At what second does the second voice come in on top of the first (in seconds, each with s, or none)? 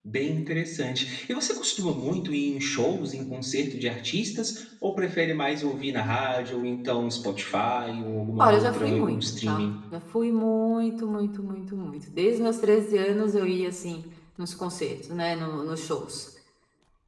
8.4 s